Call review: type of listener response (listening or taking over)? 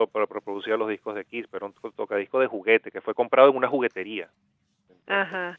listening